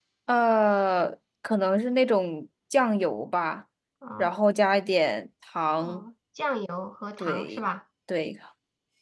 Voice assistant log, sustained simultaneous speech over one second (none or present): none